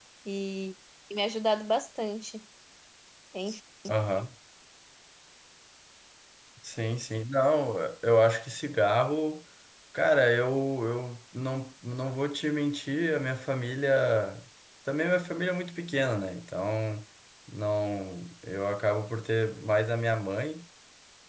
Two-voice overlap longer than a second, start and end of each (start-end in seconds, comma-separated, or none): none